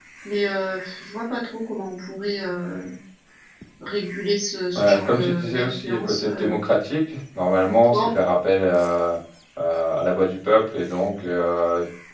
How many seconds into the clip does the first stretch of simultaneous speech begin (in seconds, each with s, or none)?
4.8 s